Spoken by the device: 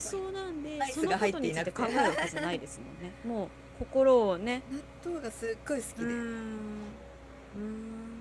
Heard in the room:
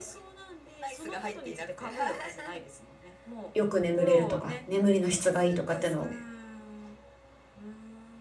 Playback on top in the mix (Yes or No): No